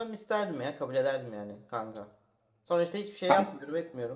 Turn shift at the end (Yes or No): No